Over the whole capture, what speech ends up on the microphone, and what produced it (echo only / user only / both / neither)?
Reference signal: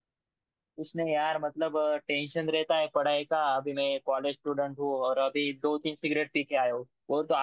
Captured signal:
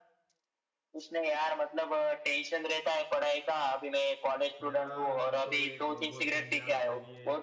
both